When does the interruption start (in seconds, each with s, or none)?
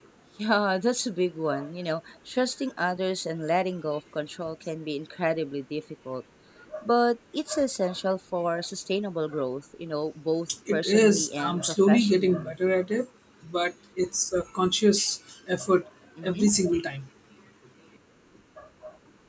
10.7 s